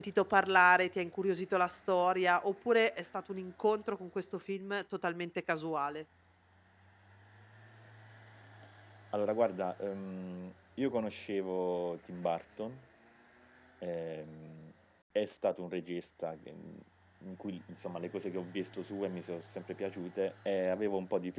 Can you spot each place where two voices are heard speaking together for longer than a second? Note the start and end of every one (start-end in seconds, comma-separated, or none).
none